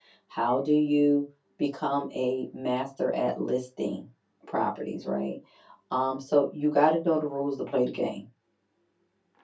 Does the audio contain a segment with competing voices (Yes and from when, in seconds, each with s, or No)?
No